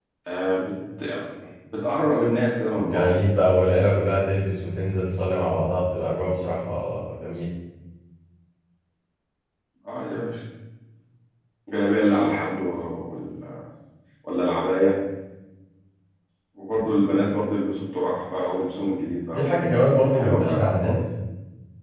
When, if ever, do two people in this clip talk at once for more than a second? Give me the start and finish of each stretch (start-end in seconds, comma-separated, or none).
19.3-20.9